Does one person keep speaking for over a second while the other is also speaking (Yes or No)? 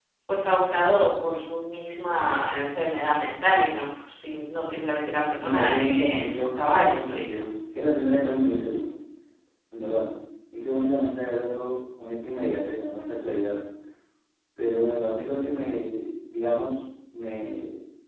Yes